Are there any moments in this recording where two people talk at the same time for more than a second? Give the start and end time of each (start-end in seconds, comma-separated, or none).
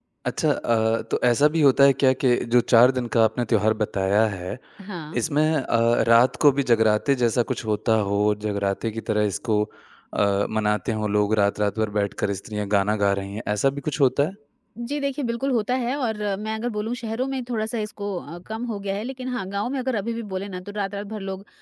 none